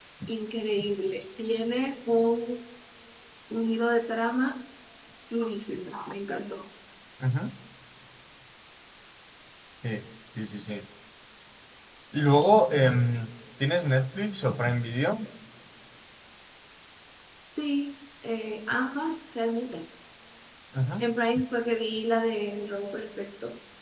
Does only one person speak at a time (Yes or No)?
Yes